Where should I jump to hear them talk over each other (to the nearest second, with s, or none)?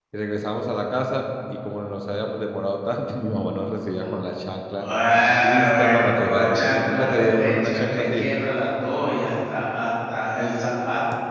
5 s